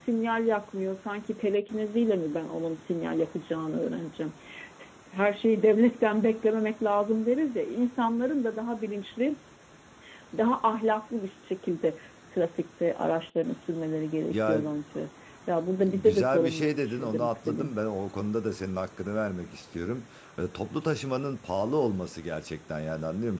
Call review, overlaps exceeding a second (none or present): present